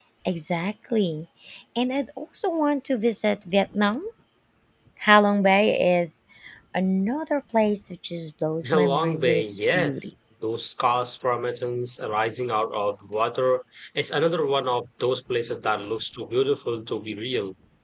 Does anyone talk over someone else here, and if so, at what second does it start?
9 s

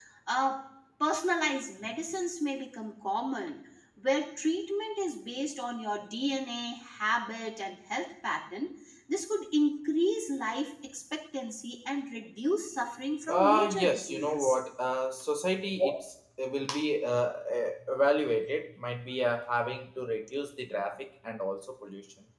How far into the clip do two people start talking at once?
13 s

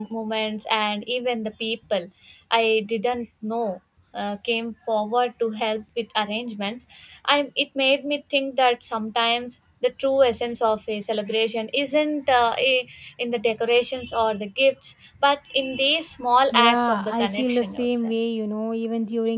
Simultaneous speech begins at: 17 s

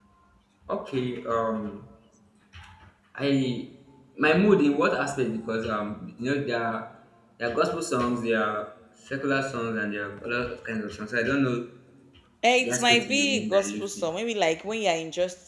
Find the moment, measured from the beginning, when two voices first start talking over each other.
13 s

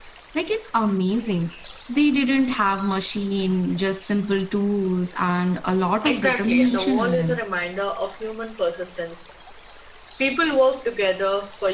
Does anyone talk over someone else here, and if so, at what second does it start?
6 s

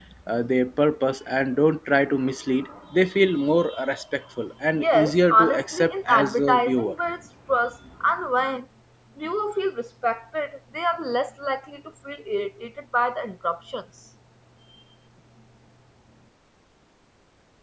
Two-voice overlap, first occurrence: 5 s

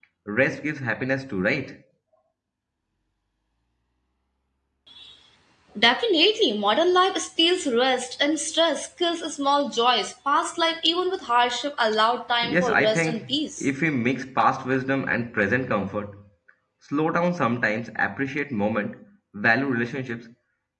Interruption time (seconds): 12 s

